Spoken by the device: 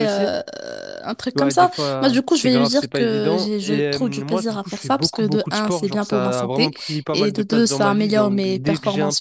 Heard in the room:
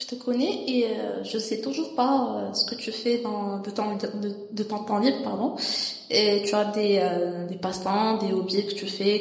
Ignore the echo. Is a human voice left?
Yes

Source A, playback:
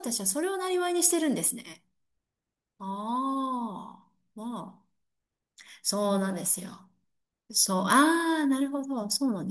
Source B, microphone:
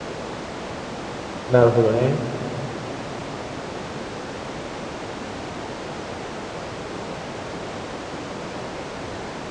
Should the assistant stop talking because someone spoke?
Yes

